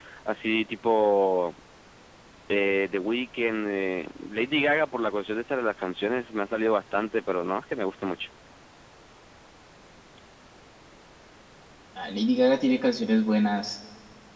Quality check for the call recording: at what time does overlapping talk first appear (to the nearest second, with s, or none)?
none